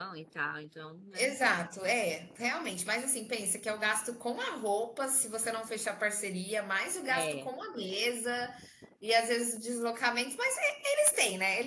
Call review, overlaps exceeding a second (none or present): none